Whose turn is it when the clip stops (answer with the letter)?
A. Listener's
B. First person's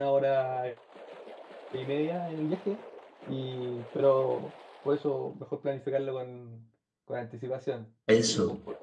B